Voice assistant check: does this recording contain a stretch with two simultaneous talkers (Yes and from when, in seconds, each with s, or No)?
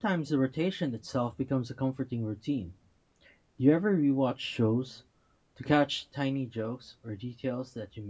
No